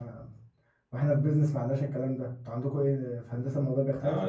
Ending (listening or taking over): taking over